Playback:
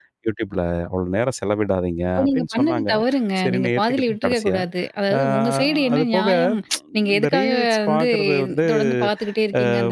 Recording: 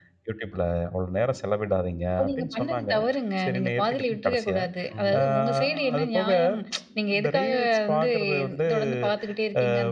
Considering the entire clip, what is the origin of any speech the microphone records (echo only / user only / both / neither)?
both